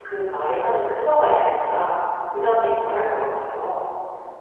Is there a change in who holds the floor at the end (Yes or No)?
Yes